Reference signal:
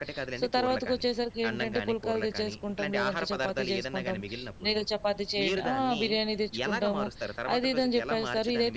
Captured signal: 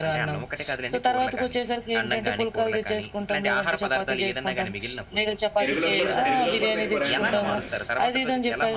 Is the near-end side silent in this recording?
No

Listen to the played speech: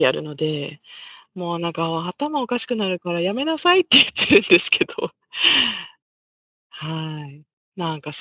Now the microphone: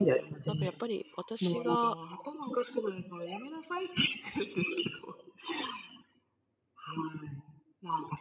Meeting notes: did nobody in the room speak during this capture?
No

